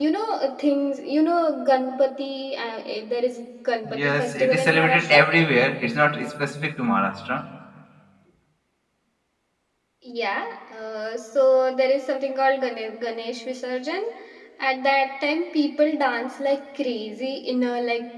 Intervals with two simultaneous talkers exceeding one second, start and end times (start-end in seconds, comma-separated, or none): 3.8-5.2